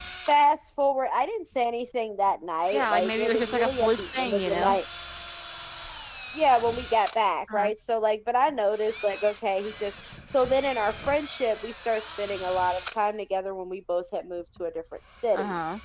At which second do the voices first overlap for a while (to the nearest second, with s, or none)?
3 s